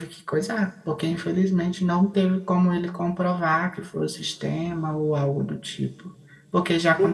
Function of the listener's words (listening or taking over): taking over